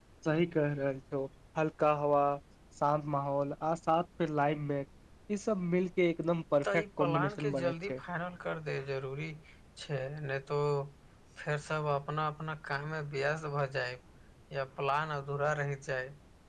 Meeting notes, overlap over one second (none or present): present